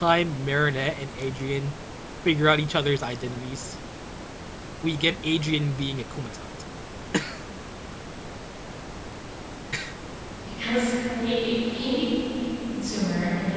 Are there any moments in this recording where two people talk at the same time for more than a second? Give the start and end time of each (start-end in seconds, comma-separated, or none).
none